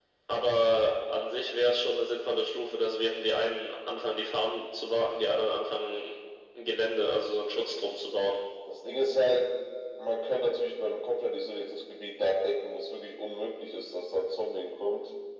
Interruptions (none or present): none